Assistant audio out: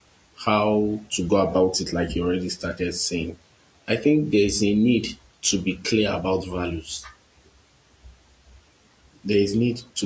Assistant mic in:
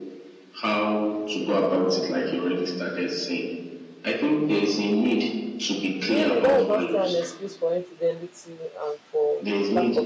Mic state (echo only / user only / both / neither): both